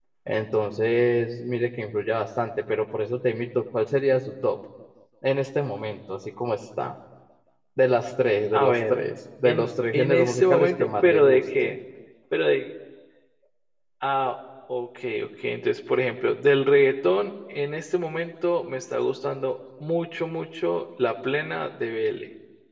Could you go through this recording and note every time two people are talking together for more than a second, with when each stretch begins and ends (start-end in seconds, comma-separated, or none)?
9.4-11.8